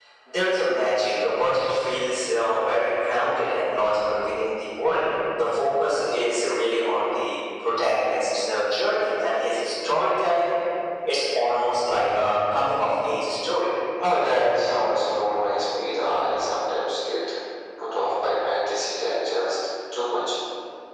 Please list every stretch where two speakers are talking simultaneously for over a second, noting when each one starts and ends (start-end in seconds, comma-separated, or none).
none